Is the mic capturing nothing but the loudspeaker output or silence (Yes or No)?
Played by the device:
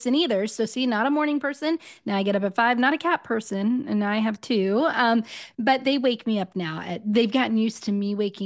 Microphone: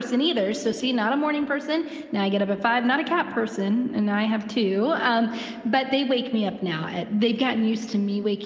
Yes